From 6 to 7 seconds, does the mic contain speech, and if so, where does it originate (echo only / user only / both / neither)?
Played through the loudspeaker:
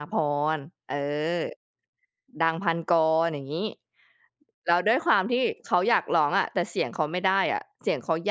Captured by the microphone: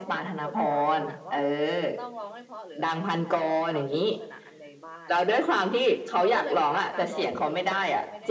both